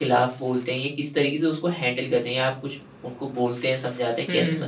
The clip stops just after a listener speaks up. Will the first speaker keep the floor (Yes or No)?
No